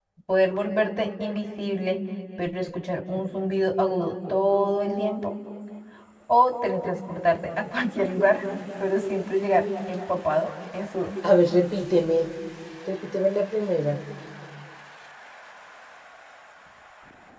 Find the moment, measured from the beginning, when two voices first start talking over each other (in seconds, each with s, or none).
none